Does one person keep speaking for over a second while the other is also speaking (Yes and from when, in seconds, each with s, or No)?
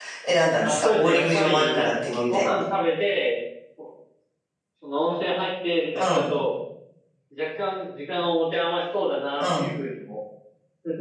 Yes, from 0.6 s